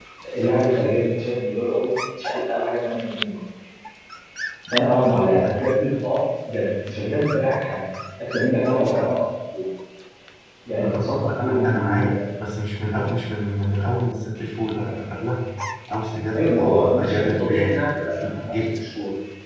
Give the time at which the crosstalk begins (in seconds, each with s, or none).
10.7 s